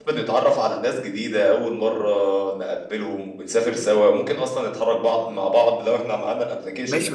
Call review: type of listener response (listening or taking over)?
taking over